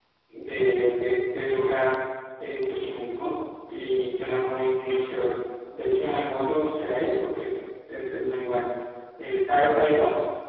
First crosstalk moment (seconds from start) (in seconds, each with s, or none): none